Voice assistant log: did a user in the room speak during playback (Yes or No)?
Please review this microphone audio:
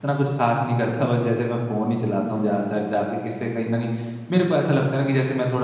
Yes